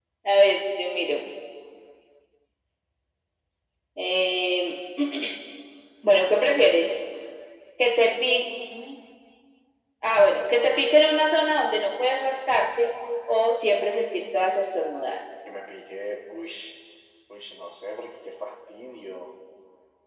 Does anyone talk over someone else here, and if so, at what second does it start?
none

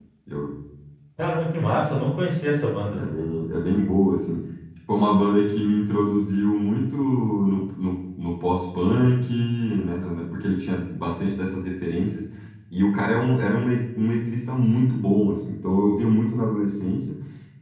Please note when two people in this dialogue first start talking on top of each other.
none

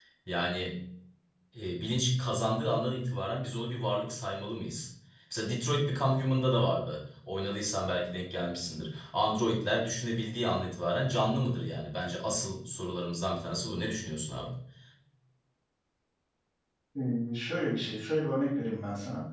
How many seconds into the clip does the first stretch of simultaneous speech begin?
none

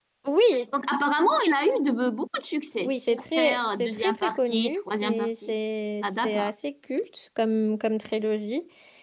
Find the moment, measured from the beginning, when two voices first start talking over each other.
2.8 s

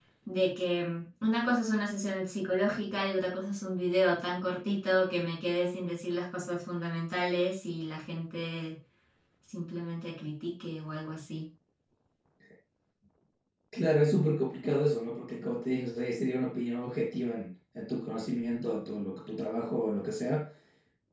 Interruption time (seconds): none

